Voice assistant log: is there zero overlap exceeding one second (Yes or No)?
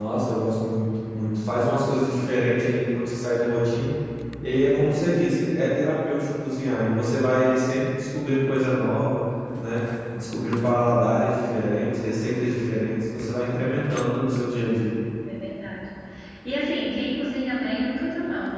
Yes